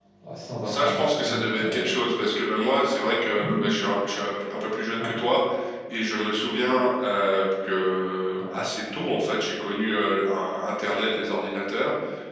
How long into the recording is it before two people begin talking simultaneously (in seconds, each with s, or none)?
0.6 s